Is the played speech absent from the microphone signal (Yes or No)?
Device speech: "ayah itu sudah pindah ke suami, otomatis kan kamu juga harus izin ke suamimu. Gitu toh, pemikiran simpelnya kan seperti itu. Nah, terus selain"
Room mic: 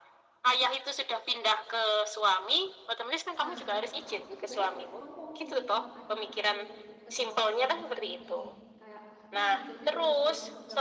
No